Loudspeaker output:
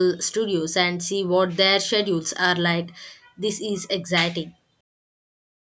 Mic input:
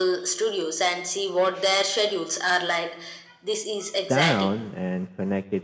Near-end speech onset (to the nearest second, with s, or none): 4 s